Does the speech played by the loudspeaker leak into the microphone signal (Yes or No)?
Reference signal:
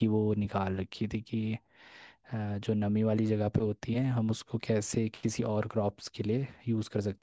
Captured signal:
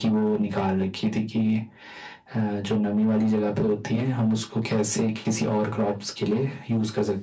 Yes